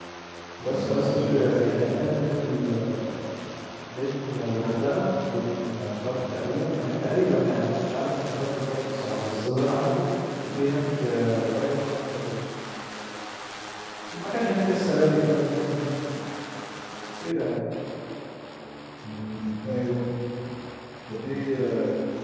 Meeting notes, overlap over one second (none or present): present